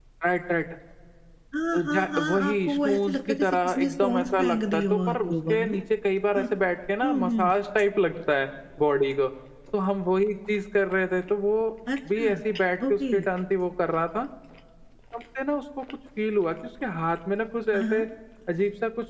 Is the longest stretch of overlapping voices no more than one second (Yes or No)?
No